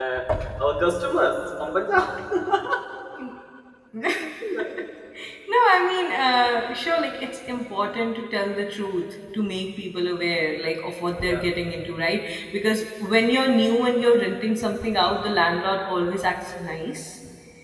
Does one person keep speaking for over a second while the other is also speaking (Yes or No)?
No